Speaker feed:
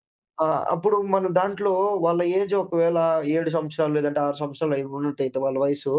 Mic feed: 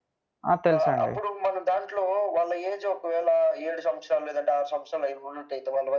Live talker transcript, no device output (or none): ఆ! తెలుసండి.